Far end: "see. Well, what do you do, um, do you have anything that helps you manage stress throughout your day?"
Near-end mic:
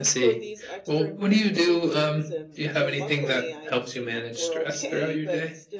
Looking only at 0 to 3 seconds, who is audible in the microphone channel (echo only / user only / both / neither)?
both